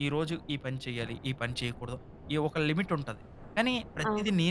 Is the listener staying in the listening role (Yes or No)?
Yes